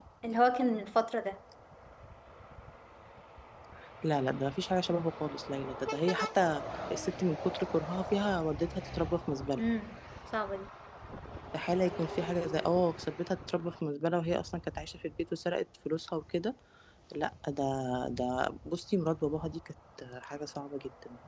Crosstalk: none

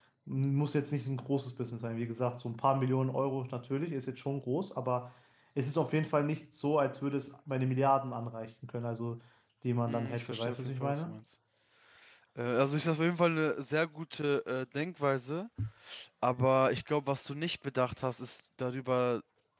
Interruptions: present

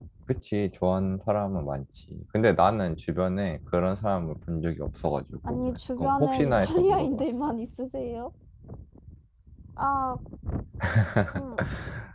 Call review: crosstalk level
present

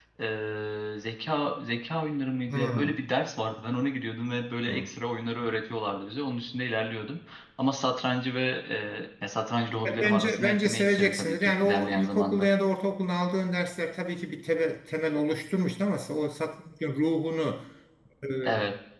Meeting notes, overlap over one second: present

